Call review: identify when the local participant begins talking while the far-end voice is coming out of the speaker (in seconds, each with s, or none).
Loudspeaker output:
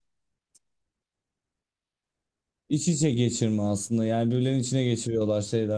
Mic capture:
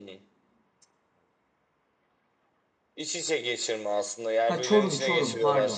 4.4 s